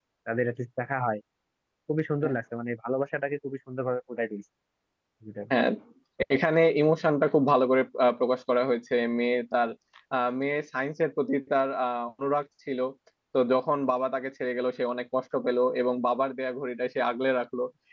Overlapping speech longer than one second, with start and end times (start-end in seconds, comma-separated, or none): none